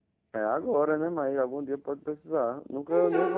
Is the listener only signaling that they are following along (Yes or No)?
No